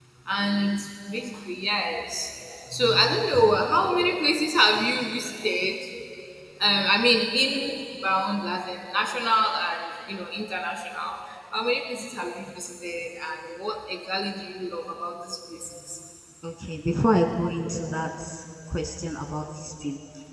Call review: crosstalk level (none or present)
none